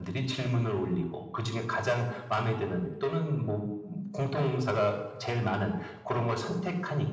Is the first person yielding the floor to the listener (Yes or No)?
No